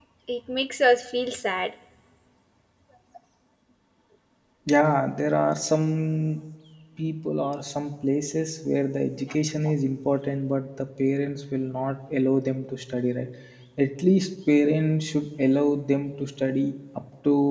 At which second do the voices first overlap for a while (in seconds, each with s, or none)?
none